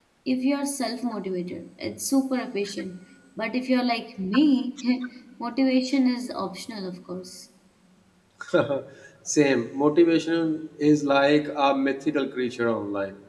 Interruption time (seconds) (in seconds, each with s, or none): none